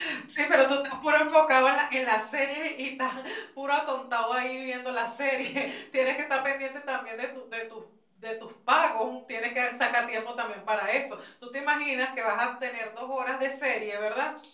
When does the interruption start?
none

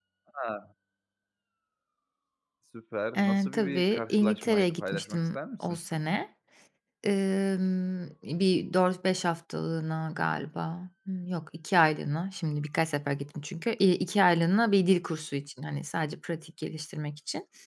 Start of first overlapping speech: 3.2 s

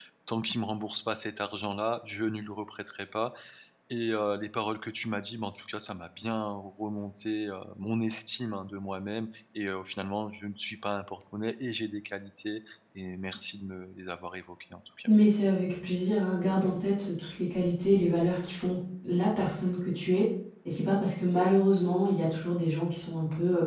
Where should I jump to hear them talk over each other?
none

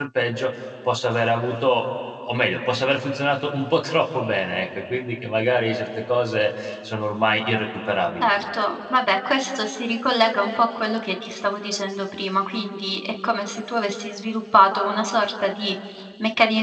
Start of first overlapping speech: none

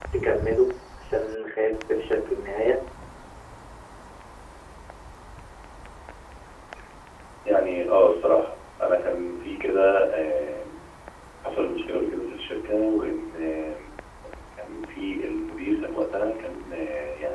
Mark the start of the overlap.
none

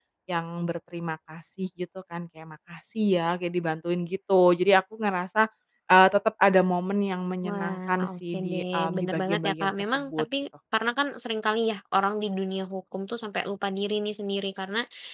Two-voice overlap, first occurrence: 7.4 s

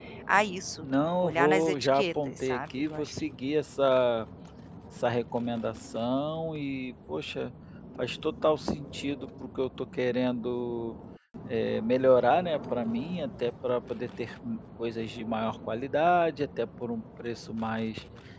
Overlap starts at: 0.8 s

